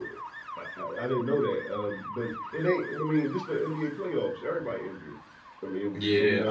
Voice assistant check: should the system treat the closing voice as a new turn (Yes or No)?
Yes